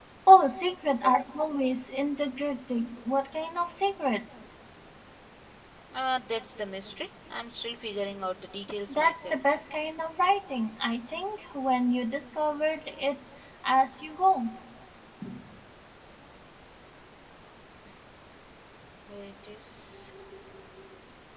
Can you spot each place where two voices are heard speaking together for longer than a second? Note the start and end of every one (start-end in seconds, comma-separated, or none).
none